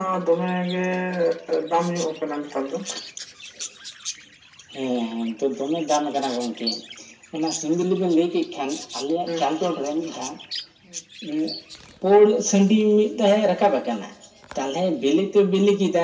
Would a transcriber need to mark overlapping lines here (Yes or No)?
No